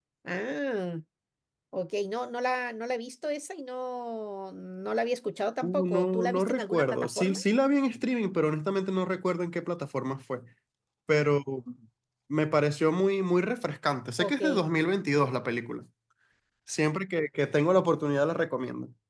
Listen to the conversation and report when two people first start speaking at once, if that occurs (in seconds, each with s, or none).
5.6 s